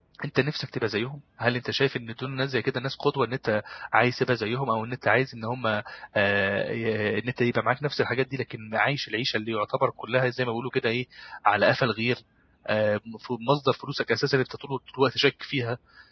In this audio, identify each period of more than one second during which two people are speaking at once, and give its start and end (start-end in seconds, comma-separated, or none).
none